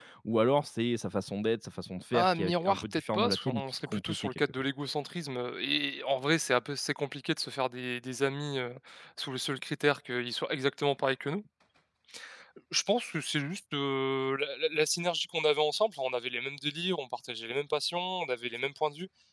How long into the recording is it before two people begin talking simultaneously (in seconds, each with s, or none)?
2.1 s